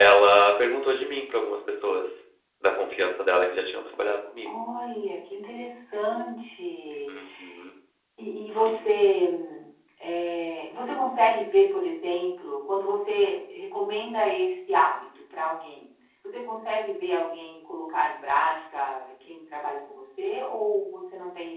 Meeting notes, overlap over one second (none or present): none